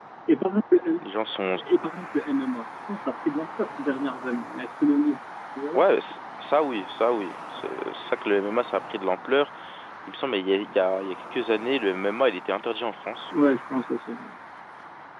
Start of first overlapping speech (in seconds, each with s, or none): none